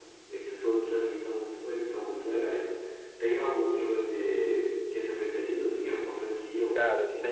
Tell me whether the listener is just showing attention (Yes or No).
No